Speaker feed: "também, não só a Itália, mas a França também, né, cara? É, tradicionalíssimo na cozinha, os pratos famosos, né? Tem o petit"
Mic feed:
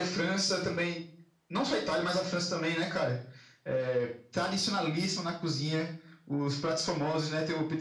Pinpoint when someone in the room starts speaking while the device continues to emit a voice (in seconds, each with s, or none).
none